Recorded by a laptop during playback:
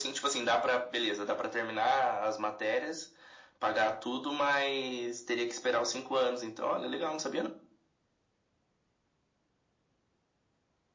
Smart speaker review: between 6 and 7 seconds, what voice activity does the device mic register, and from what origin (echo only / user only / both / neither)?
echo only